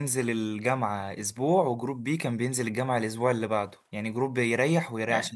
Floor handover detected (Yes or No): No